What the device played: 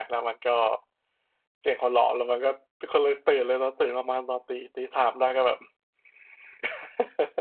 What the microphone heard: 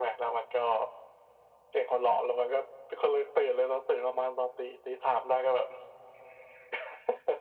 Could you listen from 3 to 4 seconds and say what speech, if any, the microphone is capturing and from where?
echo only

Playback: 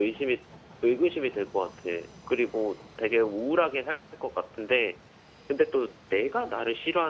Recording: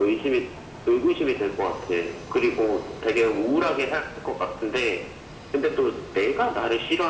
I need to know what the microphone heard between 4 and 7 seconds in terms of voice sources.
echo only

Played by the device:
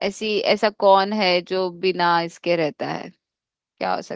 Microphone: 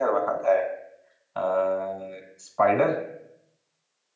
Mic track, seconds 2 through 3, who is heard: user only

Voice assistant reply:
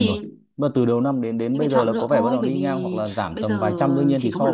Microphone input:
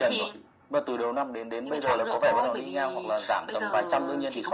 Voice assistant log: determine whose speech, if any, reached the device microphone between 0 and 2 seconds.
echo only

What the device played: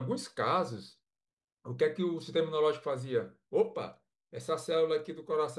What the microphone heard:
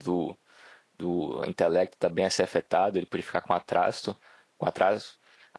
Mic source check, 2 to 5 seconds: user only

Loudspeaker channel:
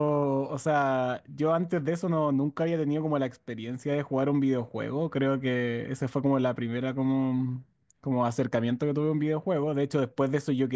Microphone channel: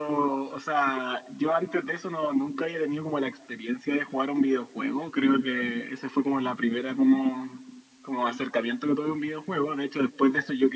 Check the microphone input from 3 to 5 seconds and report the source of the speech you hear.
echo only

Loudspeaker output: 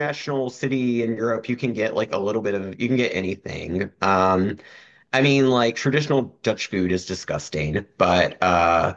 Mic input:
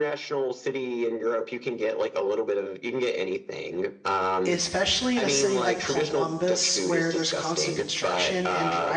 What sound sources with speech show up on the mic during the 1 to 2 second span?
echo only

